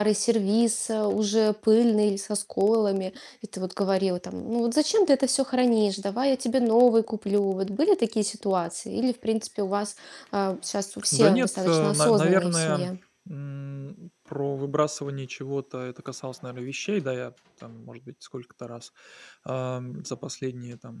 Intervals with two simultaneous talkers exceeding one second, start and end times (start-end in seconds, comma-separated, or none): 11.1-12.9